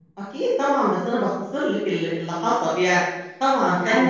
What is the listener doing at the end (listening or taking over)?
taking over